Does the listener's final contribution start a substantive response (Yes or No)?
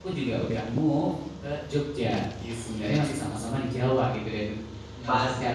No